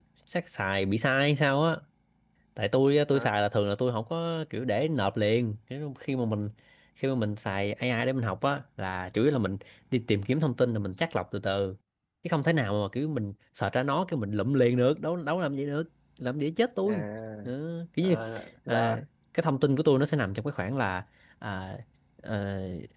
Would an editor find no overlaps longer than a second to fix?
Yes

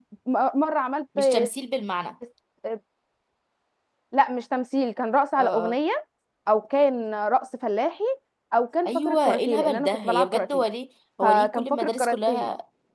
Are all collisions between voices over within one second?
No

